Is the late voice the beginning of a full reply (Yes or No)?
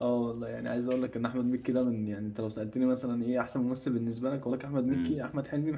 No